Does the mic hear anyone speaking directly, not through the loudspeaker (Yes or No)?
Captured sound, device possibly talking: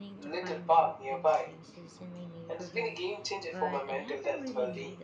Yes